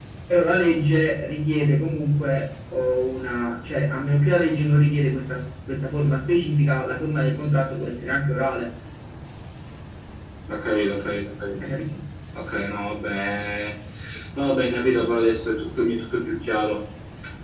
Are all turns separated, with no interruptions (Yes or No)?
Yes